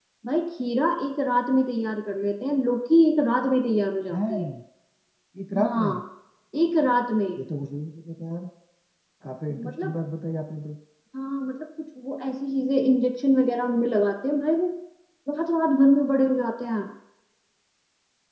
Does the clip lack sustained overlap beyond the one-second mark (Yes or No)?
Yes